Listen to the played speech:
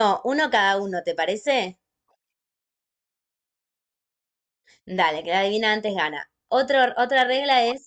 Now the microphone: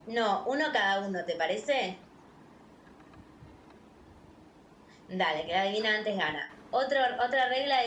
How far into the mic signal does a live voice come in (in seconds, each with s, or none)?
none